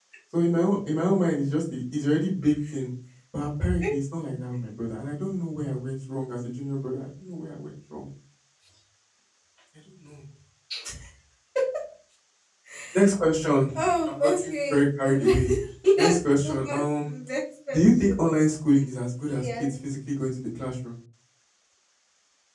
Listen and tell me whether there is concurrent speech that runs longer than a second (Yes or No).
Yes